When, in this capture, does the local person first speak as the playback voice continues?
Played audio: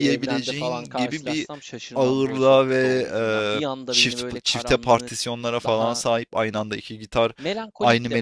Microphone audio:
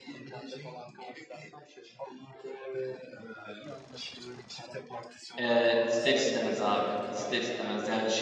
5 s

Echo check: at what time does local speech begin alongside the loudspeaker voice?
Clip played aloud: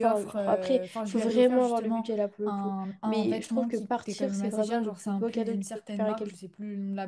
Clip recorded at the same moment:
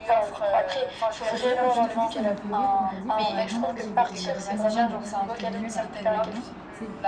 1 s

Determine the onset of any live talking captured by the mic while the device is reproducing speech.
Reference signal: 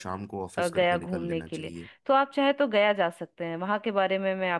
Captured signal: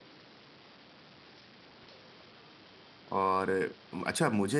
3 s

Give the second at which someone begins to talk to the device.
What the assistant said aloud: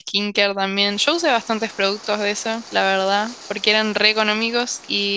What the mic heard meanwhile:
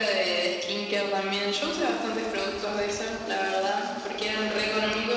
none

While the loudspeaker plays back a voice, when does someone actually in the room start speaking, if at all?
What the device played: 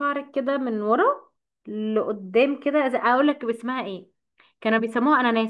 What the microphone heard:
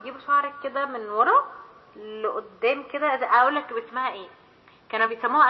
none

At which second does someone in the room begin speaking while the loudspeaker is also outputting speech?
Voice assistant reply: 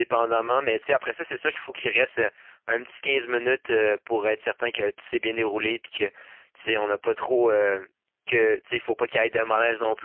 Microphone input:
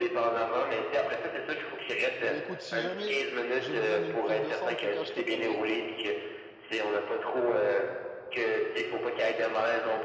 2 s

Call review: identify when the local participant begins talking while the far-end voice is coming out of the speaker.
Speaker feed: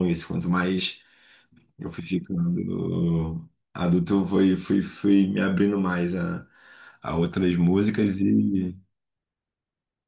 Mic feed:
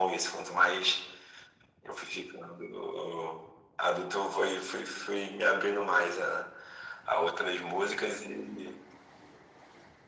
none

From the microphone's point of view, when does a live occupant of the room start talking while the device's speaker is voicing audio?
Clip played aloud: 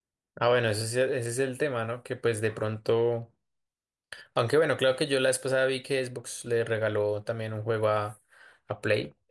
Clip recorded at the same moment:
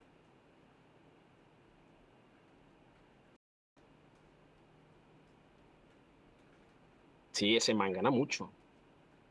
7 s

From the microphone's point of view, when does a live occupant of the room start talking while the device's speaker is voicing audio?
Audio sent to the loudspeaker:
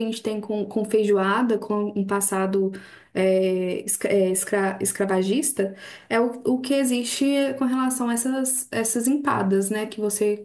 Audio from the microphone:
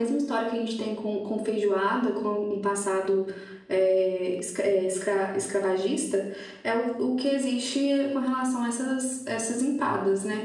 none

